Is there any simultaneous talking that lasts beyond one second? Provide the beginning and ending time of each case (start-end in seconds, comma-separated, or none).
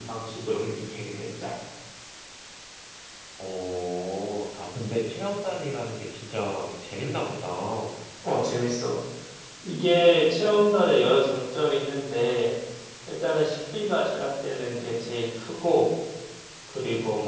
none